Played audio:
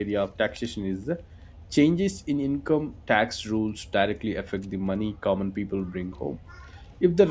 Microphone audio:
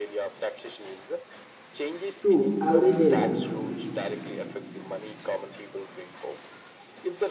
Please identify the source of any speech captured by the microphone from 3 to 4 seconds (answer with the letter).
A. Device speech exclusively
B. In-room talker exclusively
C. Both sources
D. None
C